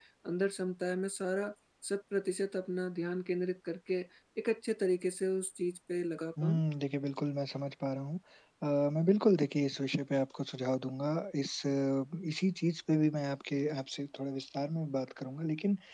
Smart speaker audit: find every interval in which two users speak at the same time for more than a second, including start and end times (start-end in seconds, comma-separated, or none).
none